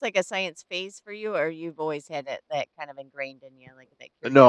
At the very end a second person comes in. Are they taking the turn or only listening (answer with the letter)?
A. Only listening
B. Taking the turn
B